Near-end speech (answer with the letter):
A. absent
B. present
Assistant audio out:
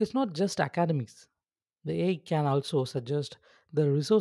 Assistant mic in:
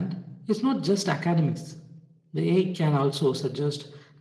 A